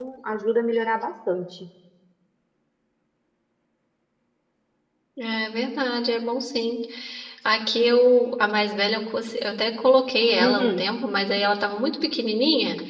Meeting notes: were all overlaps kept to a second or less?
Yes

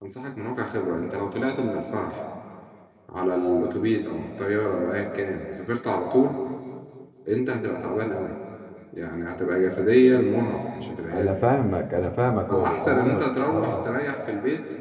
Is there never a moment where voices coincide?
No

